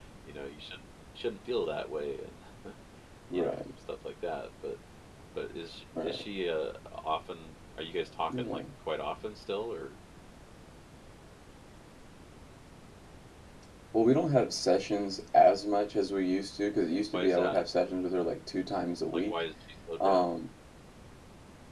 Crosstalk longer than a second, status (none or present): none